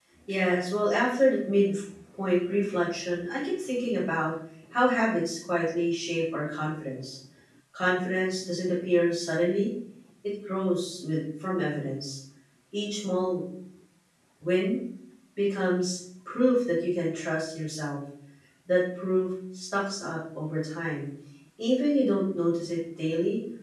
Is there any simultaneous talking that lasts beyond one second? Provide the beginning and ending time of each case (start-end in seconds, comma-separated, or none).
none